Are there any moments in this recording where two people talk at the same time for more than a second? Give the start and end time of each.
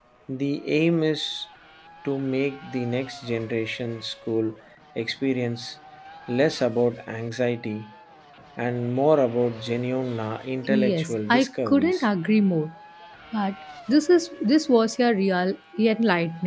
10.7-12.0

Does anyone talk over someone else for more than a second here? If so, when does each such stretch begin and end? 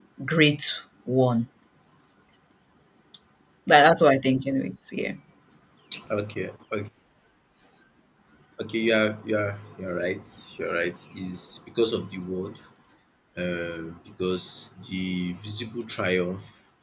none

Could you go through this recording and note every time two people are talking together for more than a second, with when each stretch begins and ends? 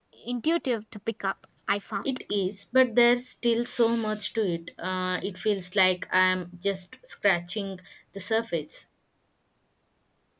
none

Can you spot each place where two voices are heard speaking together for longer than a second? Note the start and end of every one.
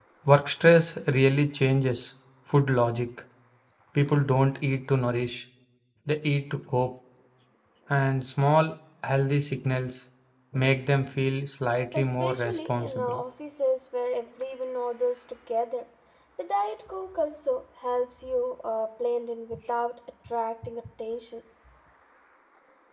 11.9-13.1

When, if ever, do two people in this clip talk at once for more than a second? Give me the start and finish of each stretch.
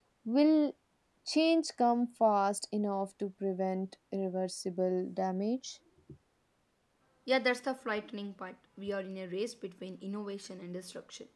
none

